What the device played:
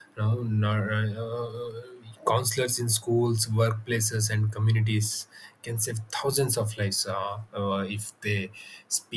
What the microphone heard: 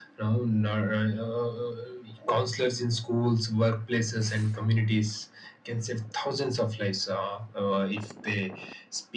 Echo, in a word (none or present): present